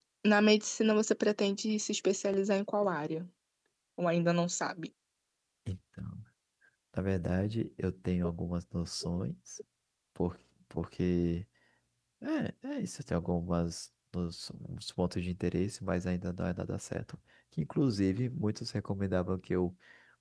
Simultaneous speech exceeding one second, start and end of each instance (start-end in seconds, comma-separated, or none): none